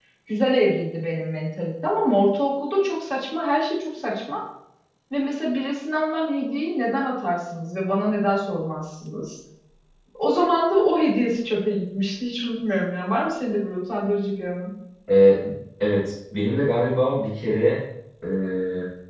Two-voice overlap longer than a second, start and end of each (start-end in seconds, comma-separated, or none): none